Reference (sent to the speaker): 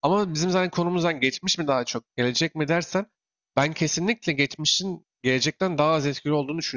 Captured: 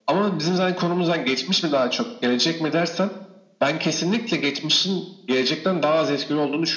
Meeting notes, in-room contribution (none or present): none